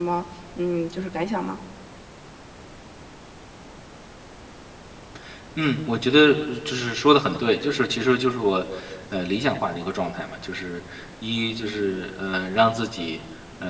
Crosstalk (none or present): none